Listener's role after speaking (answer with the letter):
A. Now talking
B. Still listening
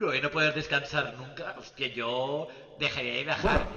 B